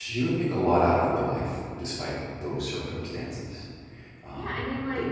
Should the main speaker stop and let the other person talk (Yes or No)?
Yes